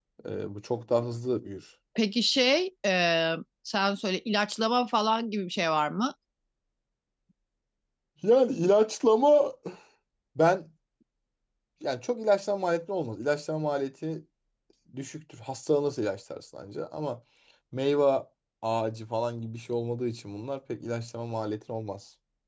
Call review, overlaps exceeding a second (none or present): none